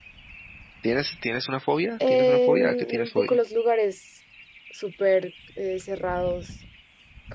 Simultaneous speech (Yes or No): Yes